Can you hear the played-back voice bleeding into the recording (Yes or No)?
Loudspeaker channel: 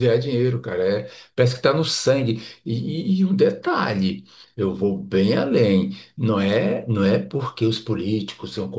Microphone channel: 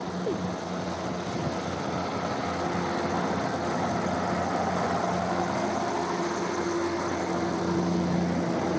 No